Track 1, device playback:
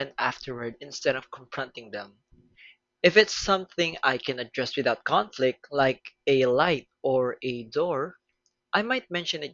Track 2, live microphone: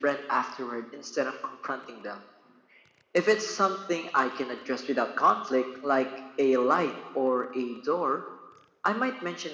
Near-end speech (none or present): none